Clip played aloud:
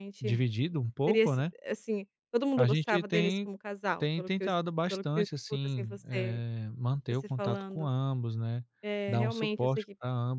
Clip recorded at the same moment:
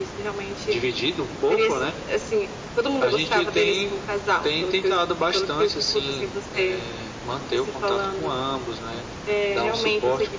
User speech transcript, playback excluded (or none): none